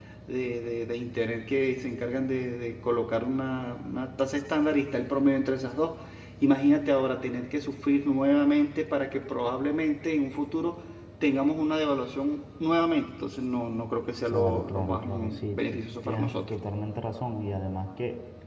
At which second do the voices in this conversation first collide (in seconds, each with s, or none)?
14.3 s